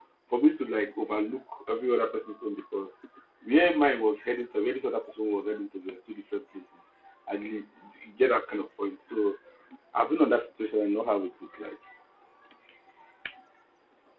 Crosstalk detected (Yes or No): No